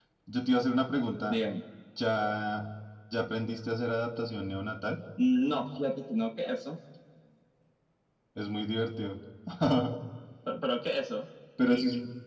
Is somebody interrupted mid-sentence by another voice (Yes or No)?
No